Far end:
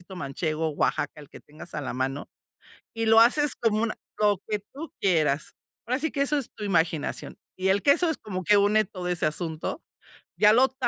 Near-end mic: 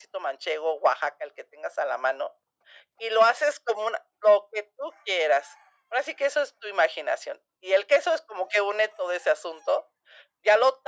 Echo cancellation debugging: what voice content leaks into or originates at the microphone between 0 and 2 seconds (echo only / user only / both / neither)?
echo only